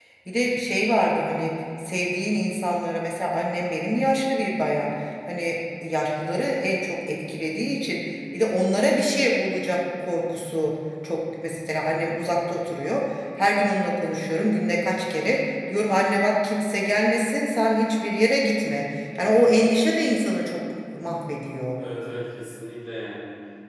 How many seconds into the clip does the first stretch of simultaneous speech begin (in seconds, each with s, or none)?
none